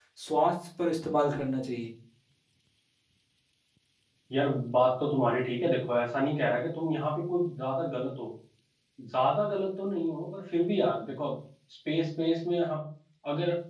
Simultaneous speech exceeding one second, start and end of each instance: none

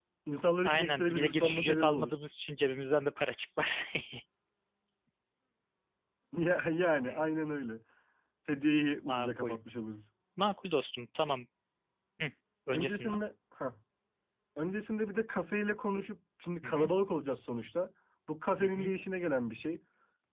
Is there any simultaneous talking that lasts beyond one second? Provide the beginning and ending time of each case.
0.6-2.1

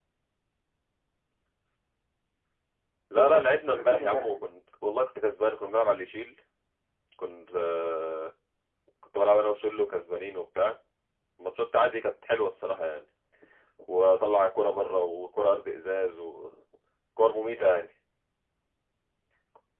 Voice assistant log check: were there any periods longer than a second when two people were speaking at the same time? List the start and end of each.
3.1-4.4

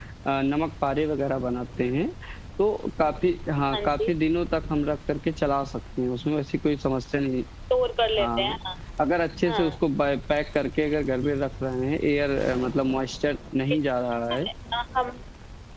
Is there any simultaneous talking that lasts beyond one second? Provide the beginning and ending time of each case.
none

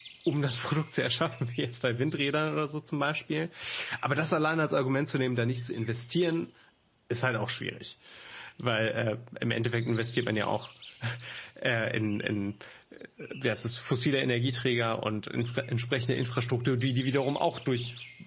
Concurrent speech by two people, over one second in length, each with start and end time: none

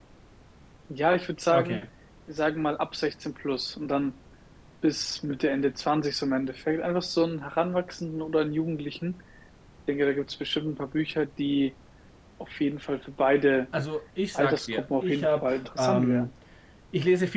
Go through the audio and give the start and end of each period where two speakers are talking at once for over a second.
14.3-16.3

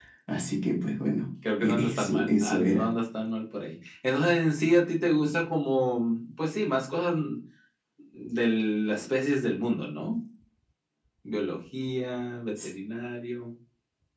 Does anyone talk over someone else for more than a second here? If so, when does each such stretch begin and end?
1.6-2.9

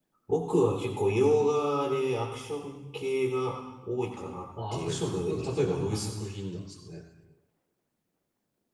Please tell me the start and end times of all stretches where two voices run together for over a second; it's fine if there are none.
4.7-6.1

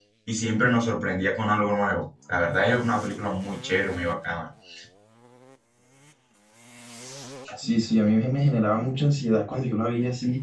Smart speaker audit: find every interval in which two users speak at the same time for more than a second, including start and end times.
none

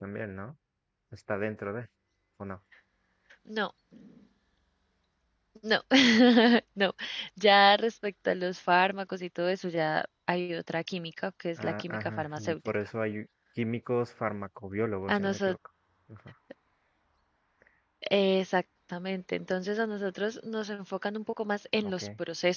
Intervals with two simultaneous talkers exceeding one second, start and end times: 11.6-12.9

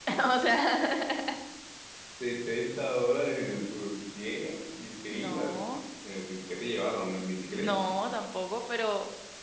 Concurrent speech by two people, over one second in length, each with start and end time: none

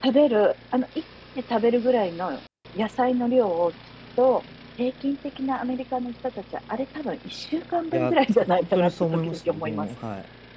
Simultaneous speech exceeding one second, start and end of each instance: 7.9-9.9

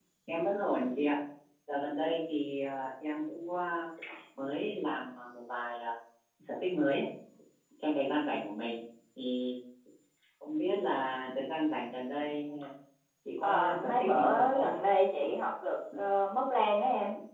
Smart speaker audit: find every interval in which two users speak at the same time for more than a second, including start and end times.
13.4-14.7

